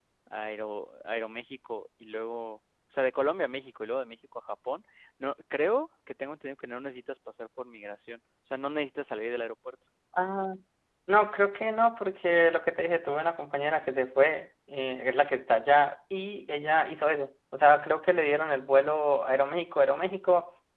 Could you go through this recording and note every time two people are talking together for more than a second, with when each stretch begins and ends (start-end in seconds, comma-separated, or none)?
none